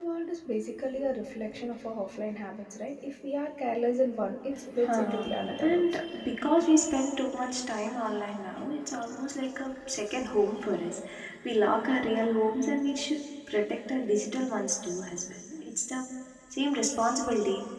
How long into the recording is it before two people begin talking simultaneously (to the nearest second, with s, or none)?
5 s